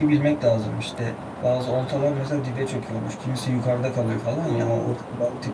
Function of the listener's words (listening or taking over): listening